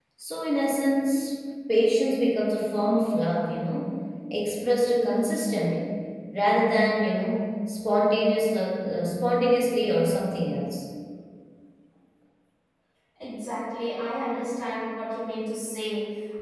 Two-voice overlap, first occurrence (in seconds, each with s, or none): none